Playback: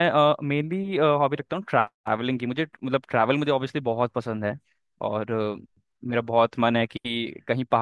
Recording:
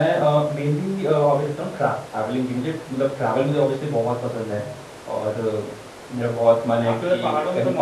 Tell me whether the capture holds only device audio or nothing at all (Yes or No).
No